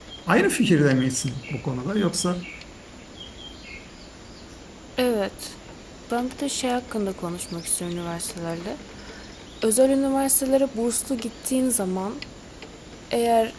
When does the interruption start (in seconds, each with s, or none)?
none